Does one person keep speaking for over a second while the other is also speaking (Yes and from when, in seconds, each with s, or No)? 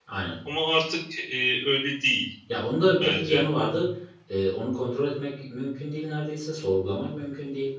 No